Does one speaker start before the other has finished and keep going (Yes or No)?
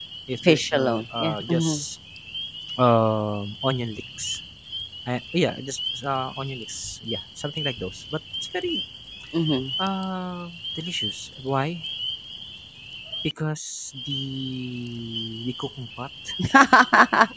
Yes